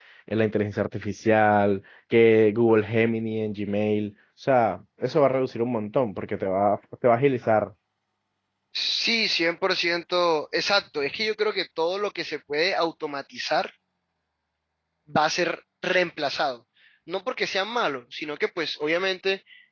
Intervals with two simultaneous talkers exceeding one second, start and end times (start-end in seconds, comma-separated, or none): none